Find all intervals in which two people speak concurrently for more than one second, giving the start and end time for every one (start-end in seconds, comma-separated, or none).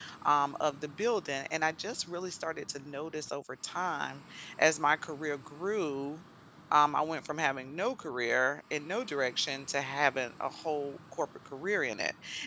none